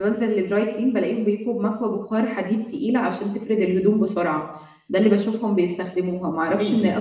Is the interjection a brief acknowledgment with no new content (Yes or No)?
Yes